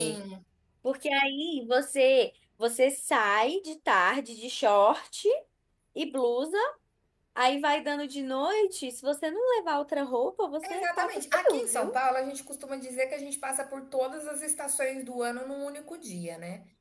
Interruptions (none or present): present